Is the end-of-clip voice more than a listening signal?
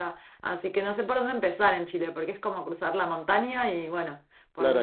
Yes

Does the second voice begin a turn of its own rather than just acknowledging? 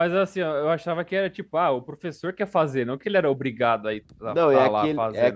Yes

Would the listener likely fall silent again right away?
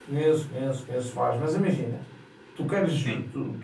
Yes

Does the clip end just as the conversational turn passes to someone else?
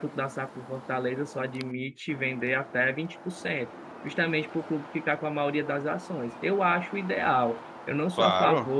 No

